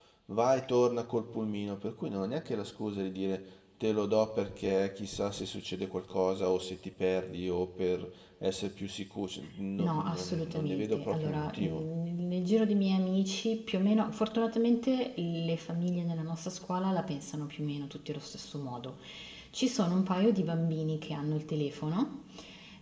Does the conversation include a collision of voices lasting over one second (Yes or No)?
Yes